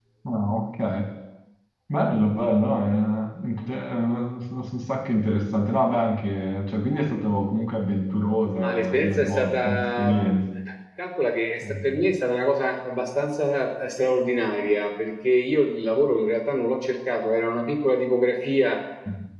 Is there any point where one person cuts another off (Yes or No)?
Yes